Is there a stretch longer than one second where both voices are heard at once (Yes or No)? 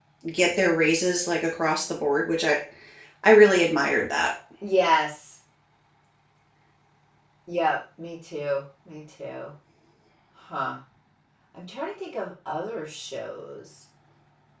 No